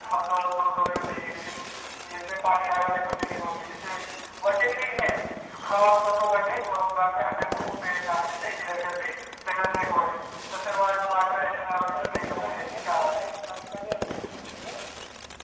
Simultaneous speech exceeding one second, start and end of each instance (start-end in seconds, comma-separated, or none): 11.5-13.3